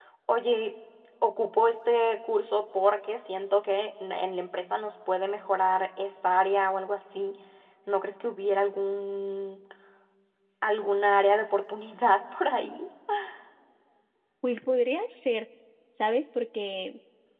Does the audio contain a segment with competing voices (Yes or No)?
No